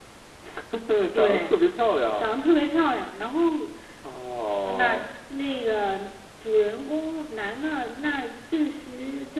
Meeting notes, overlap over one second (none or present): none